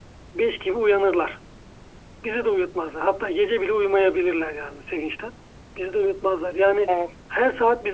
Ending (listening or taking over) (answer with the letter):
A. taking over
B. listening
B